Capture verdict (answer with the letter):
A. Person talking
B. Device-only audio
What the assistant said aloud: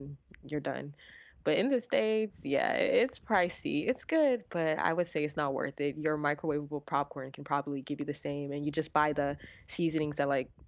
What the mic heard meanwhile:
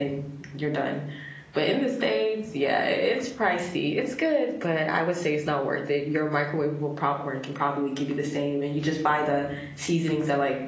B